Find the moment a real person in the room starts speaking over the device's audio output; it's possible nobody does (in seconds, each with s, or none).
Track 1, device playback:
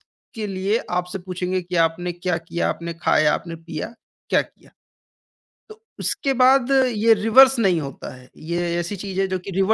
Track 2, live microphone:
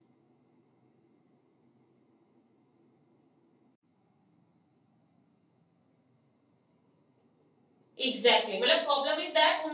8.0 s